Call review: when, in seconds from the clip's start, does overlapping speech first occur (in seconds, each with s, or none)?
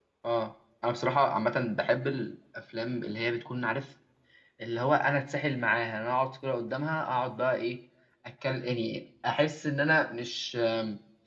none